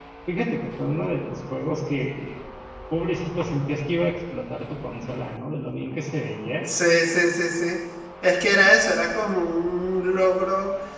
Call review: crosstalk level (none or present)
none